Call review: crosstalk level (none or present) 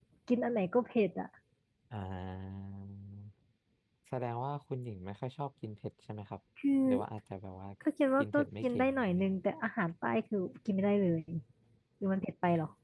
present